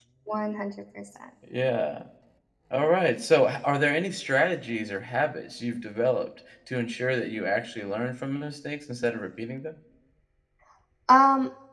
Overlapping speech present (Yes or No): No